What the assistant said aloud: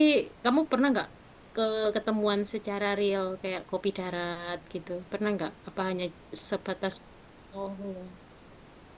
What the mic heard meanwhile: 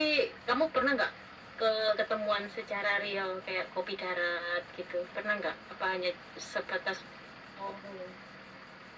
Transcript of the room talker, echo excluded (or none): none